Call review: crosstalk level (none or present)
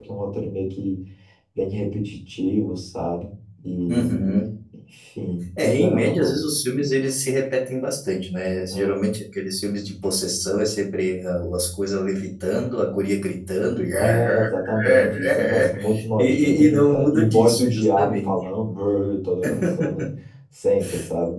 present